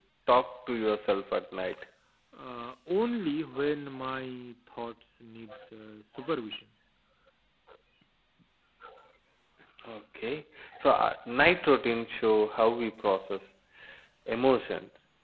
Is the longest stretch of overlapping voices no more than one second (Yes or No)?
Yes